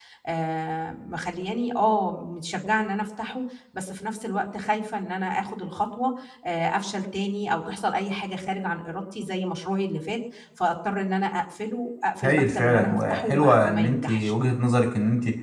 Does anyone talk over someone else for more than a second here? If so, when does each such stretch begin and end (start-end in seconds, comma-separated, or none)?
12.2-14.3